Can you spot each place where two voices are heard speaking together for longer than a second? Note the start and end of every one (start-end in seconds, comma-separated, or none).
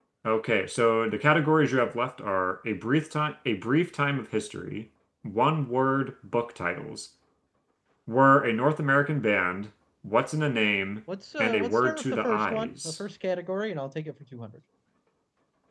11.4-12.9